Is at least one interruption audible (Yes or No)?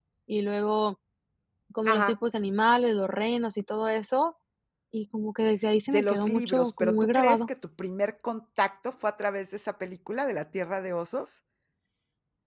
Yes